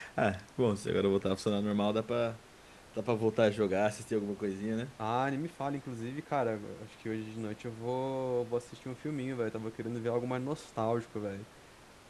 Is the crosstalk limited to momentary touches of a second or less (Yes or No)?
Yes